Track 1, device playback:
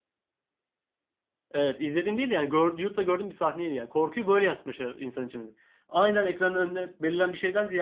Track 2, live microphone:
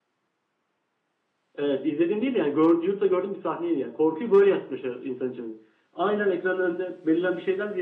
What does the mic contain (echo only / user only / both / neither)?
echo only